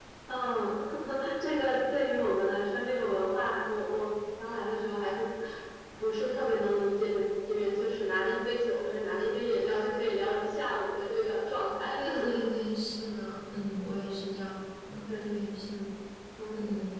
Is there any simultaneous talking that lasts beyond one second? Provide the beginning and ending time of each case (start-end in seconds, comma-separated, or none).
none